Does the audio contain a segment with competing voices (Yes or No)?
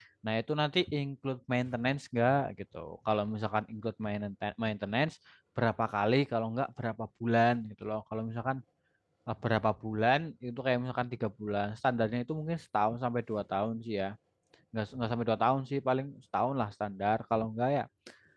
No